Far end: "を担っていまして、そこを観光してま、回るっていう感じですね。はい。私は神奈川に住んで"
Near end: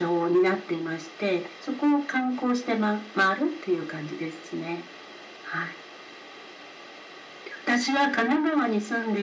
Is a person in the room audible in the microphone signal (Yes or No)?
No